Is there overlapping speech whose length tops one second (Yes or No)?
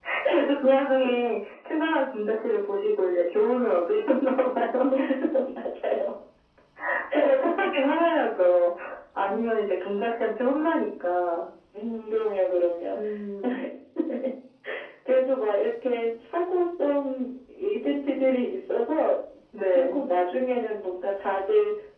No